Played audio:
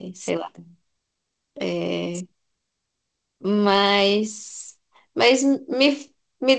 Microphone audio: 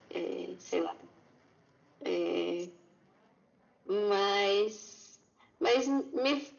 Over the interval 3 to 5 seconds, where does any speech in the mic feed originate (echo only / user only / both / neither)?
echo only